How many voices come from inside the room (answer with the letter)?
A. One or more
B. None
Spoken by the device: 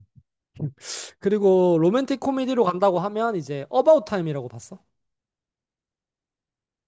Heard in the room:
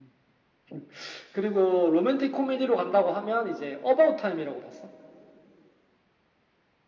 B